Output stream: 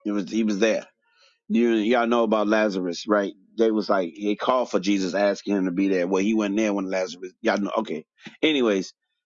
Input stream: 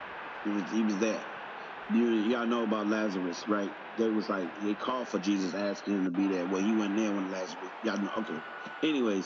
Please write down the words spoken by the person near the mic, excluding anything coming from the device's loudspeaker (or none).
none